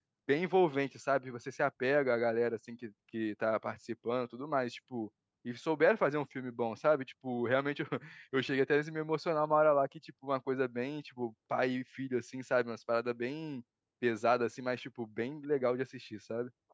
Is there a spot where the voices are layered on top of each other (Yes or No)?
No